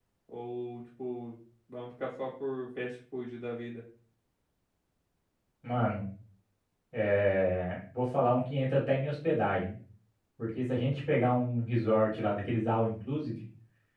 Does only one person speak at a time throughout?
Yes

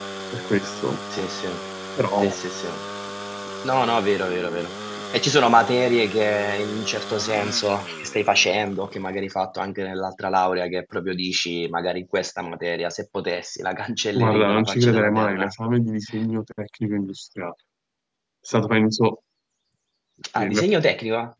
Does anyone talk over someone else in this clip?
Yes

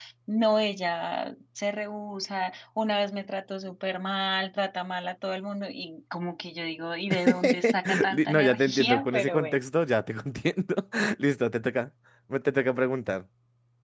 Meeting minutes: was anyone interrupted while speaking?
Yes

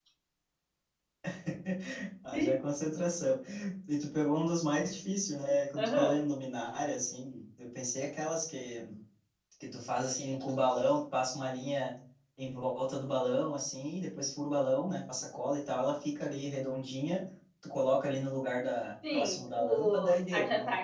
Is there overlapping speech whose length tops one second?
Yes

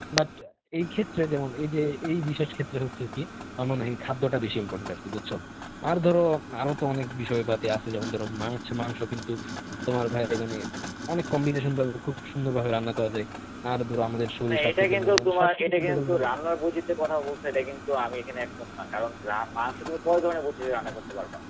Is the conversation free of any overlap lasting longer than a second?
No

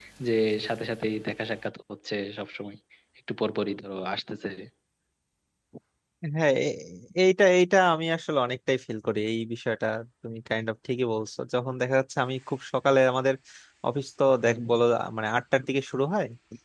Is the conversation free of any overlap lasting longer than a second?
Yes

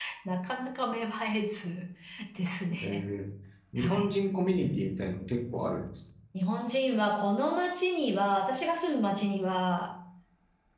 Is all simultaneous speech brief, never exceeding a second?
Yes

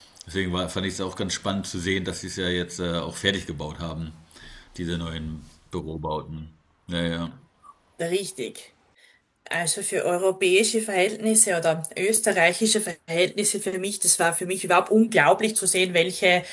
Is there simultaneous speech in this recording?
No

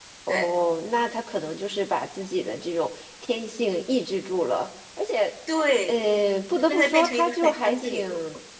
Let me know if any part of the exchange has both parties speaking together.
Yes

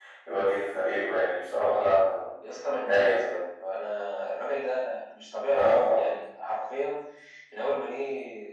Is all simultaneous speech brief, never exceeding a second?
Yes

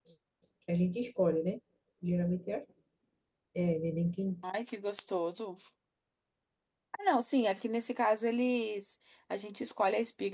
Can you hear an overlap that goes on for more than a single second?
No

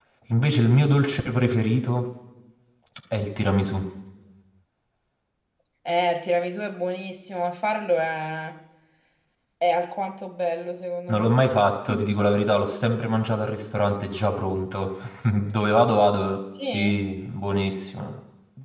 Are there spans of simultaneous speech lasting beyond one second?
No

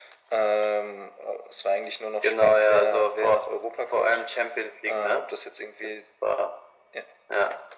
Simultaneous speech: Yes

